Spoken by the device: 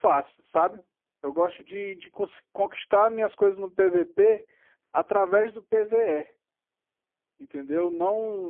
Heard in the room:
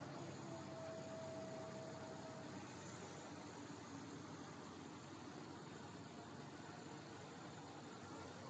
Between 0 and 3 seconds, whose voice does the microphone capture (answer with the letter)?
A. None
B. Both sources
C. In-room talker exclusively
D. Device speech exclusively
A